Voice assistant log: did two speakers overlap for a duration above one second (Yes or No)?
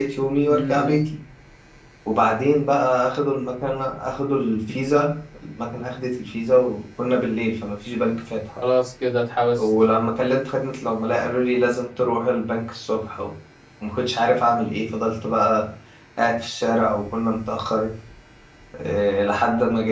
No